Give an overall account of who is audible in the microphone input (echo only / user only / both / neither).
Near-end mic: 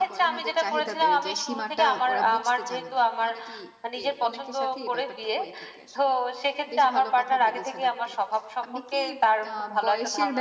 both